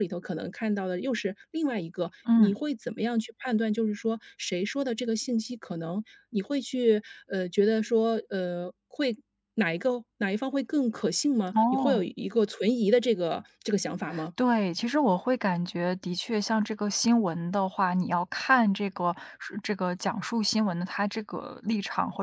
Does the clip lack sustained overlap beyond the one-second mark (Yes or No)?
Yes